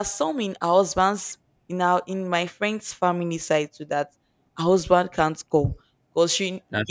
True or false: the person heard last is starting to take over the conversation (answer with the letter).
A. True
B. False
B